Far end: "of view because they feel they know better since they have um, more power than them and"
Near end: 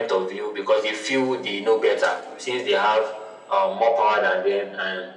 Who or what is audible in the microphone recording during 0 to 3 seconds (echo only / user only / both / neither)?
echo only